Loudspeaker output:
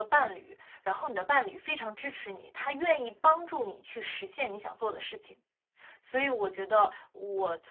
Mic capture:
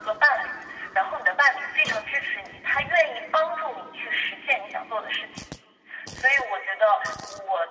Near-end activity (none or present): none